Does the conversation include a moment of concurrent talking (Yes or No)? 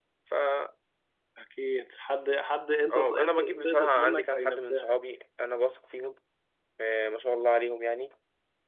Yes